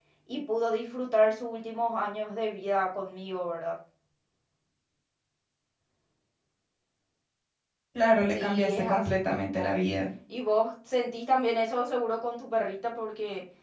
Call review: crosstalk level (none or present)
present